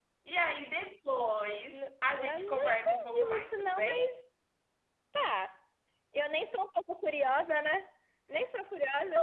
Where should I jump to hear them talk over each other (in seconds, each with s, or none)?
1.7 s